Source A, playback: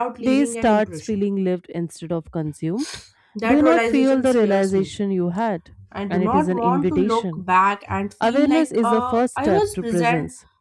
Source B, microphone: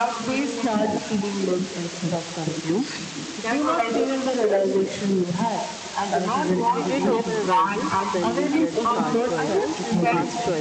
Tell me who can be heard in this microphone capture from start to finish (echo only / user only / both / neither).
both